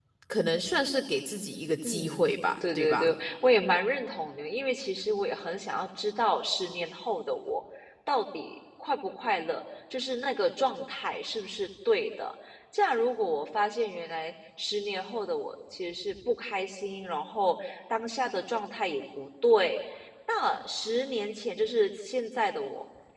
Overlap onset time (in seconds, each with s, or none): 1.8 s